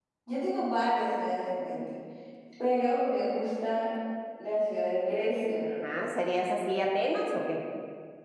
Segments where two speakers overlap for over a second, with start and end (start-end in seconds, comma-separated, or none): none